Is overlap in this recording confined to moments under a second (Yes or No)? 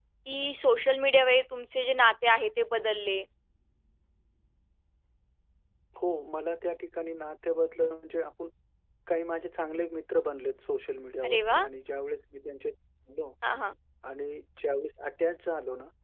Yes